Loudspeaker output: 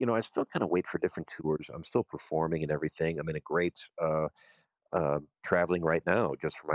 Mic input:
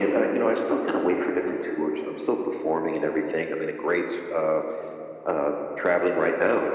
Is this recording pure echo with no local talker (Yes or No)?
Yes